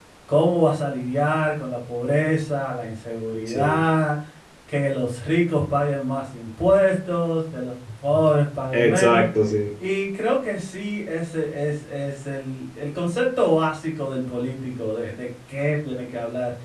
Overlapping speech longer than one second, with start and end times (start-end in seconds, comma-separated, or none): none